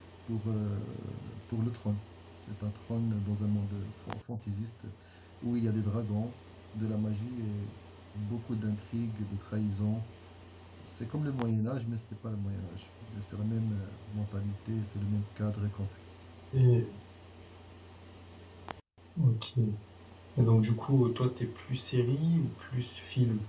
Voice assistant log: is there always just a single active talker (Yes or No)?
Yes